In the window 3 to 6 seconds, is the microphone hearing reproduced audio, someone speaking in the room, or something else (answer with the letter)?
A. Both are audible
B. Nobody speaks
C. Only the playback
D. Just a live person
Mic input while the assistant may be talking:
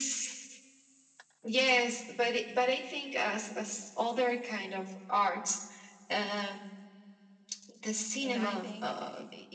C